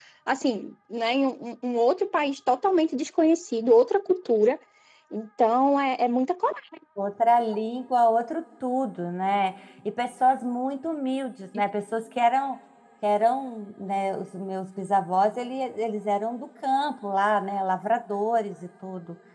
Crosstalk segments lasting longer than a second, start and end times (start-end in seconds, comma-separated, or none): none